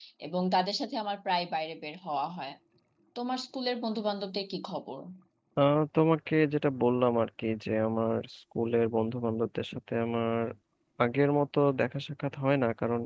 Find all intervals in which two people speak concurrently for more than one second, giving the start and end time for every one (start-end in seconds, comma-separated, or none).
none